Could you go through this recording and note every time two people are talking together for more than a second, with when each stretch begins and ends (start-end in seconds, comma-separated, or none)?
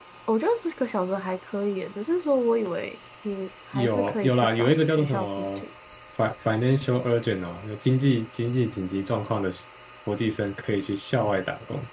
3.7-5.6